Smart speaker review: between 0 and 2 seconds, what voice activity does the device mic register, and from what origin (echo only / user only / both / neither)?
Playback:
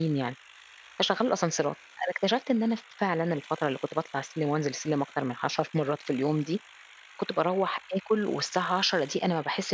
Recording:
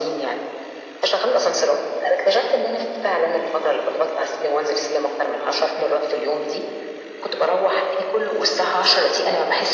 echo only